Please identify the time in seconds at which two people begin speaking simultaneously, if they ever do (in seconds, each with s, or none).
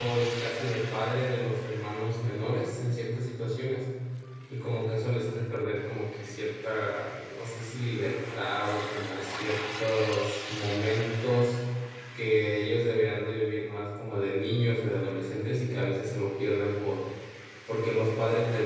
none